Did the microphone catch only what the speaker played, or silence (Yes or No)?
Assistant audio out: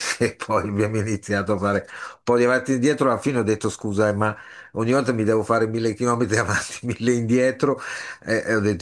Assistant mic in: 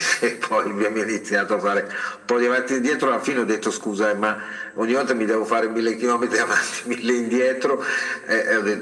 Yes